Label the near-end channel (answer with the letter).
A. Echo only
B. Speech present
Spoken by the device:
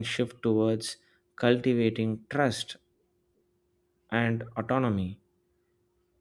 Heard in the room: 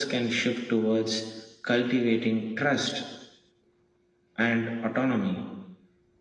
A